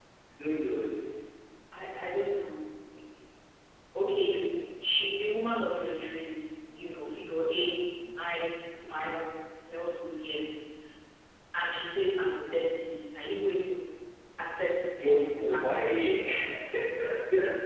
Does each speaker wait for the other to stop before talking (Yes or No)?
No